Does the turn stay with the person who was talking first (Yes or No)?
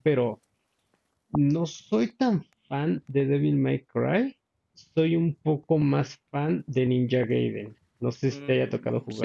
No